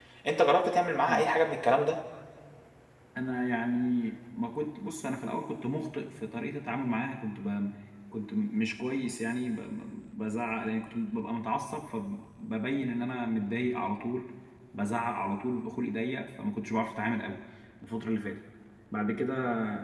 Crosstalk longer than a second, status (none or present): none